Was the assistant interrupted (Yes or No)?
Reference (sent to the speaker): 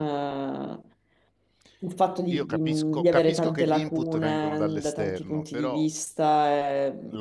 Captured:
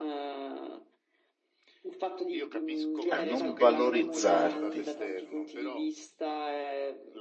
Yes